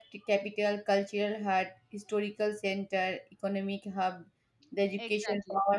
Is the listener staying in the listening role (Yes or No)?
Yes